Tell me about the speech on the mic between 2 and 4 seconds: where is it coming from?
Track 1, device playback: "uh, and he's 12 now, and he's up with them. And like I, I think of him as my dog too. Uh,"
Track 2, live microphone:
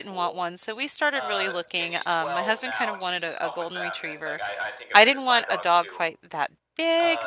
both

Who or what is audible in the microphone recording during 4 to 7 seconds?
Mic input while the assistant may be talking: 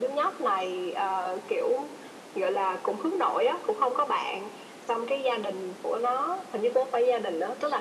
echo only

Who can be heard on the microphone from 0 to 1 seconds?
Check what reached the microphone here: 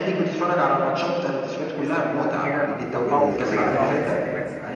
echo only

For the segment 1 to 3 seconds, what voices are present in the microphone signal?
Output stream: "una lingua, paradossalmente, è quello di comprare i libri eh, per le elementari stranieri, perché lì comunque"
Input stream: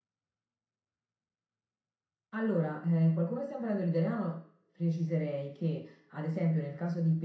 user only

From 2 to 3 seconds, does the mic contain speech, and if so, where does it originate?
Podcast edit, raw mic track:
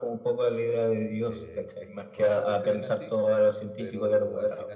both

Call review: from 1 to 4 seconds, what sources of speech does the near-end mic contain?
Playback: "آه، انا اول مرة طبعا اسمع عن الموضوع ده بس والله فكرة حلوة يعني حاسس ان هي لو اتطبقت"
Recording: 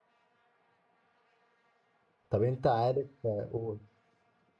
user only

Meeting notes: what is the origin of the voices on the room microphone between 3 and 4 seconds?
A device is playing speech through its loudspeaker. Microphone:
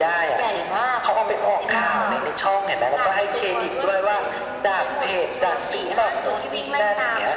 echo only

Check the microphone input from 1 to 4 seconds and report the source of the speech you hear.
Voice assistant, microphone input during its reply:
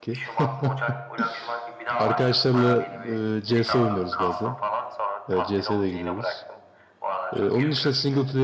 both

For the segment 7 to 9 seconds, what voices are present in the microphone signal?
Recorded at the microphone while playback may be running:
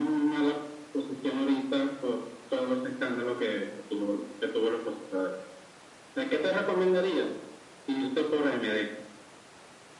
echo only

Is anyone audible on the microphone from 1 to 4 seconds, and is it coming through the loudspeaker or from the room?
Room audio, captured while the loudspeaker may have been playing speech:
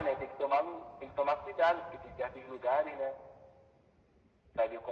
echo only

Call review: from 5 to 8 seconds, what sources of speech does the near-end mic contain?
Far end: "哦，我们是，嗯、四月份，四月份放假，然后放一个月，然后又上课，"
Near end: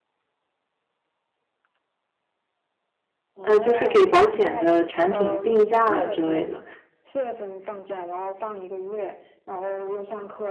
both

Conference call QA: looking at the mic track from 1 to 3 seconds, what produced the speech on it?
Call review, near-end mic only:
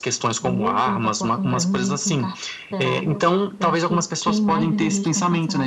echo only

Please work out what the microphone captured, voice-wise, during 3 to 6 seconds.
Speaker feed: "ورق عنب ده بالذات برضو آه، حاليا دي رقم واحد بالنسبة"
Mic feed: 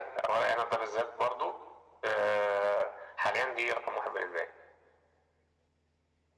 echo only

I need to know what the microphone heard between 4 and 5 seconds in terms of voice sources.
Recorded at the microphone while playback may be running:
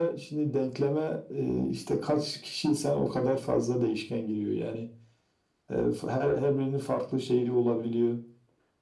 echo only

